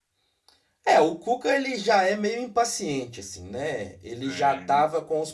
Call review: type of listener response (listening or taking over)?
listening